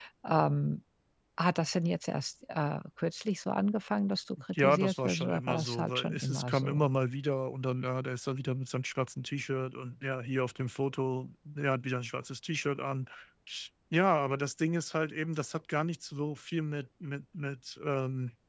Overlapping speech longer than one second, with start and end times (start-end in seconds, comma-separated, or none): 4.5-6.9